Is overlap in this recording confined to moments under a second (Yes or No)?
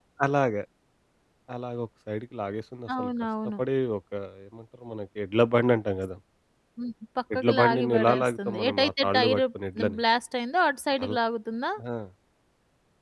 No